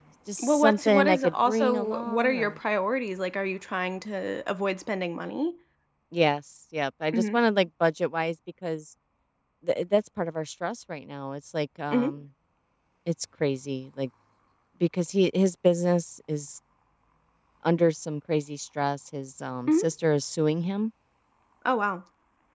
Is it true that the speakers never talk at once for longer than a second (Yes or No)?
No